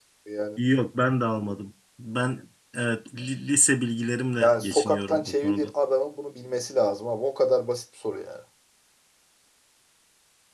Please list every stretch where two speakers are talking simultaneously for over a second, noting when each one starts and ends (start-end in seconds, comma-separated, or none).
4.4-5.7